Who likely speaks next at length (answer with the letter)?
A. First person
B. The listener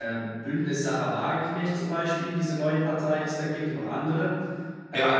B